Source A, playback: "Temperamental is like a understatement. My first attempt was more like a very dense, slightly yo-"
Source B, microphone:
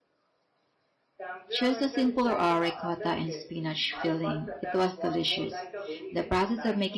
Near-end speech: present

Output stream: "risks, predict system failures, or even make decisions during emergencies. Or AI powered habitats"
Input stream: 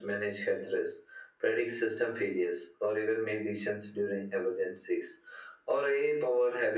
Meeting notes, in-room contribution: none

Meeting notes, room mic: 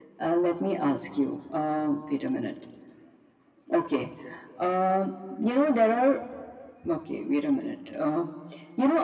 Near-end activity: none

